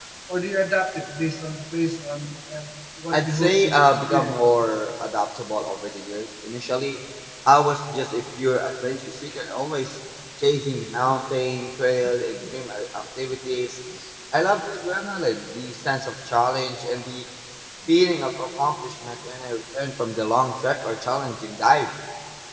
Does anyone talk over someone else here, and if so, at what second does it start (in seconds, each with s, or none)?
3.1 s